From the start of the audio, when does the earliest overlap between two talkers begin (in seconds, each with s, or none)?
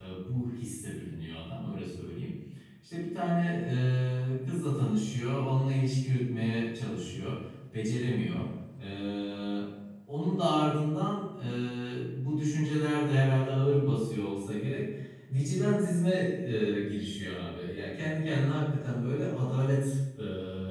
none